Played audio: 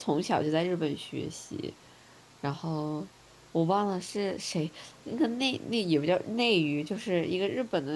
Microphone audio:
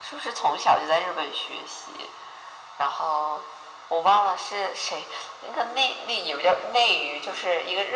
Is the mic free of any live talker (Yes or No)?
Yes